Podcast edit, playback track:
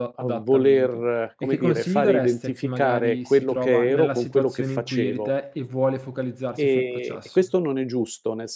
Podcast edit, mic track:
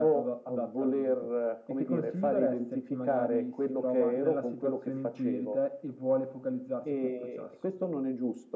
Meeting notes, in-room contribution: none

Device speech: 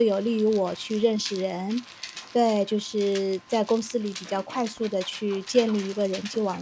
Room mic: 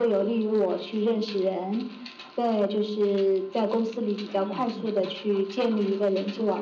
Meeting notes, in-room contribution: present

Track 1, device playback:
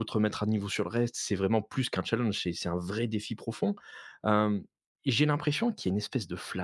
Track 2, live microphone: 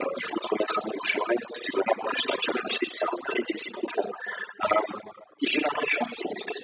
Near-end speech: none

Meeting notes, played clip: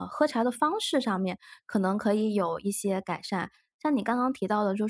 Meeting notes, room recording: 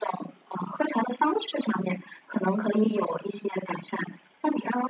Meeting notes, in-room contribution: none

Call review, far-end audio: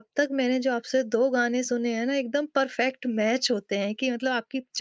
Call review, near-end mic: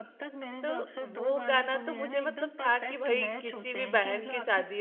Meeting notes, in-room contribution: present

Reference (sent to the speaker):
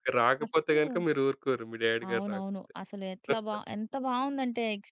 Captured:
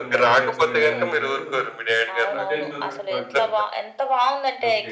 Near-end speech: present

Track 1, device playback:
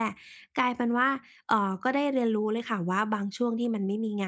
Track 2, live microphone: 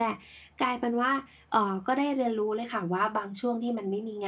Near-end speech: none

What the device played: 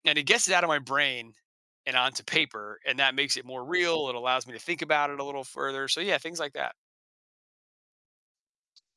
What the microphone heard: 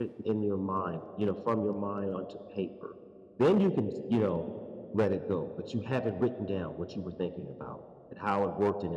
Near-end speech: present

